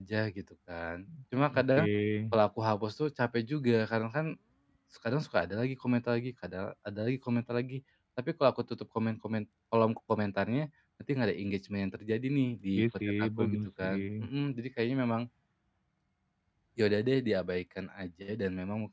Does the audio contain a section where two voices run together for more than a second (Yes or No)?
Yes